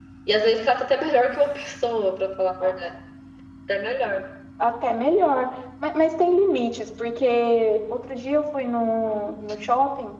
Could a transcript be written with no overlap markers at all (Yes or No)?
Yes